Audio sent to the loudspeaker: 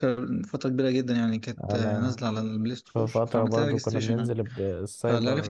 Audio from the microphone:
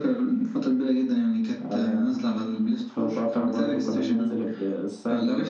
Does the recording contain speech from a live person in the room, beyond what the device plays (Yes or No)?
No